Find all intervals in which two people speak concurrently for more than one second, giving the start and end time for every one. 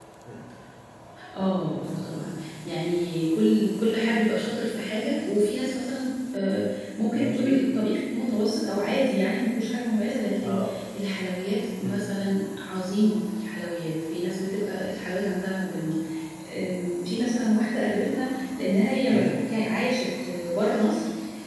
none

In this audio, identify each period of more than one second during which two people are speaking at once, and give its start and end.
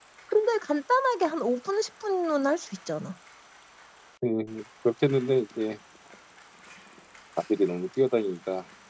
none

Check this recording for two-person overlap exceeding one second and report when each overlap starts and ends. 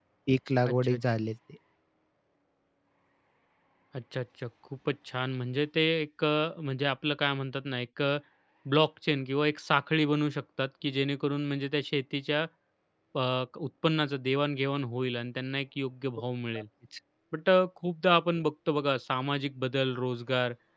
none

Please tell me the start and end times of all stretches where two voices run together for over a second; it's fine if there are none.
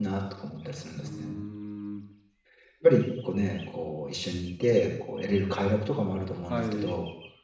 none

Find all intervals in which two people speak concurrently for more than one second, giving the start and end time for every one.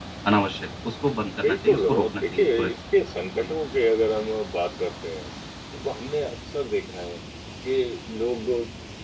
1.4-2.7

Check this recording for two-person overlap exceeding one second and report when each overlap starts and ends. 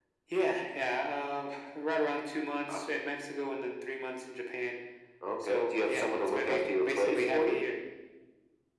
5.5-7.6

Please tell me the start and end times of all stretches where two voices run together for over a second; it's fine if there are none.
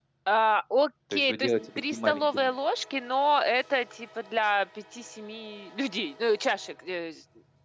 1.1-2.5

